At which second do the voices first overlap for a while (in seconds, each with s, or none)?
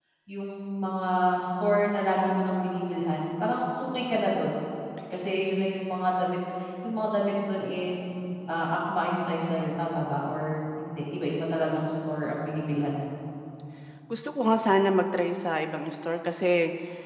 none